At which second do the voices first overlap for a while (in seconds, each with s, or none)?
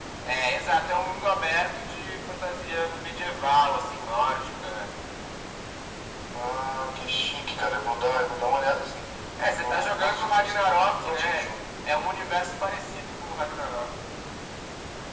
9.5 s